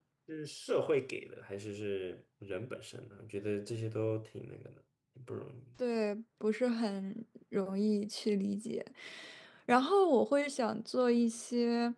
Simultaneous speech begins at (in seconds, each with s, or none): none